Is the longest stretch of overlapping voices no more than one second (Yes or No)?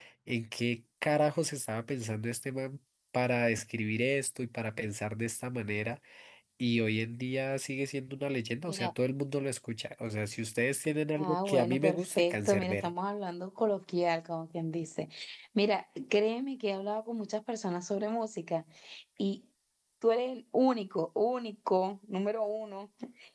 No